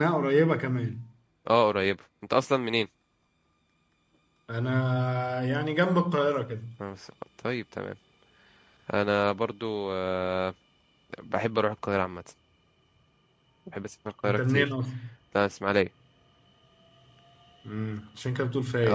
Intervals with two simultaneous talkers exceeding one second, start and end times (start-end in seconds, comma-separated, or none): none